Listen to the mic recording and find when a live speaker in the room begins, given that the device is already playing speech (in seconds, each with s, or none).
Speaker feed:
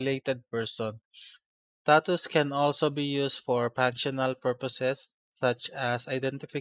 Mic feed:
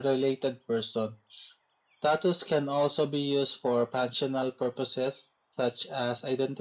none